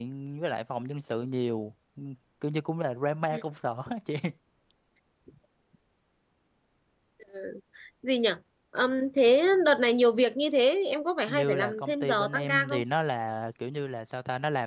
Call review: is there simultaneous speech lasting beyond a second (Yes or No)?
Yes